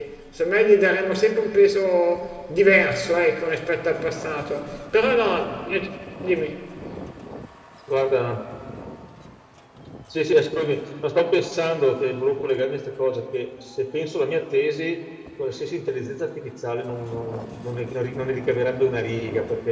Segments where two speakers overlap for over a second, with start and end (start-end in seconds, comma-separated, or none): none